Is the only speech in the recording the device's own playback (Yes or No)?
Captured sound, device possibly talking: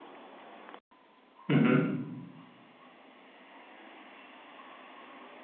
No